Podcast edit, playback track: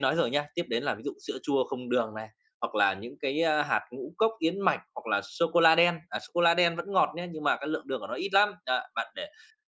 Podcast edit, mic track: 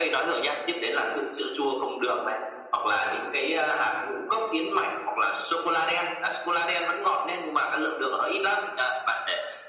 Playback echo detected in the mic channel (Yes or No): Yes